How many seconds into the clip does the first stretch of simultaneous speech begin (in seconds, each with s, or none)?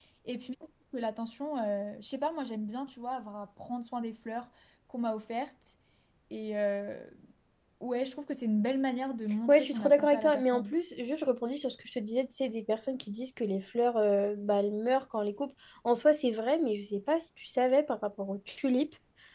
9.5 s